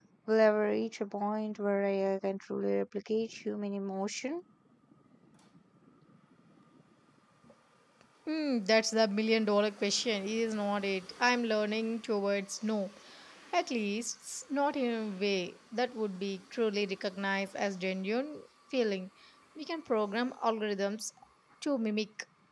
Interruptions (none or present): none